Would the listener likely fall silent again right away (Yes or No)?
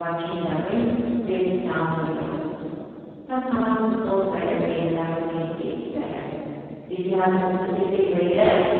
No